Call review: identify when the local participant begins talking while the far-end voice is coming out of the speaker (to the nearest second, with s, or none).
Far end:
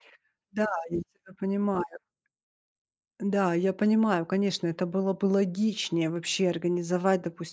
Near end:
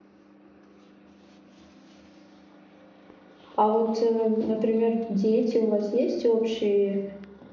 4 s